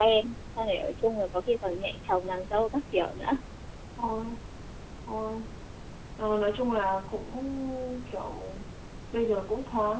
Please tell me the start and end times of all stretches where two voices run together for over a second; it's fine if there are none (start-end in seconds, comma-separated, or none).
none